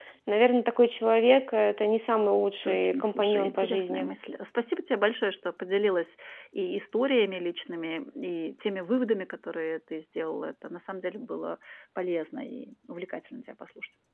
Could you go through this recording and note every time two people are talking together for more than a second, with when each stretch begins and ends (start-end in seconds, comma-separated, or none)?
2.6-4.1